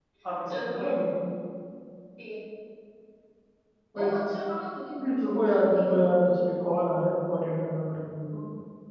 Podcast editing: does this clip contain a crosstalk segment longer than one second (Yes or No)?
Yes